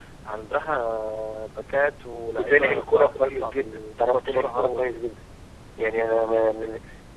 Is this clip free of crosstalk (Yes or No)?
No